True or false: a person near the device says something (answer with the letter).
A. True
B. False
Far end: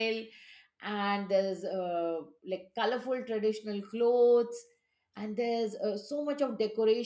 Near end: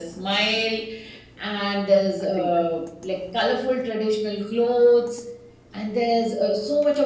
A